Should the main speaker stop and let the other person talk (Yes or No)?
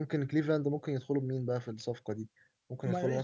Yes